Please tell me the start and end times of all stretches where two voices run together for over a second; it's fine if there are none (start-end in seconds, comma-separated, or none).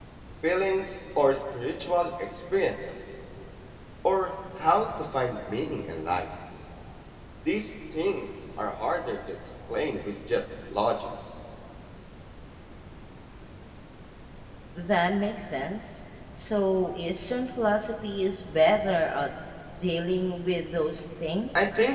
none